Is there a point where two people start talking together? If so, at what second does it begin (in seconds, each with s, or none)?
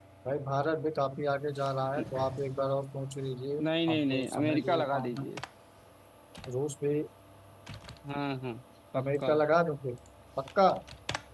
3.6 s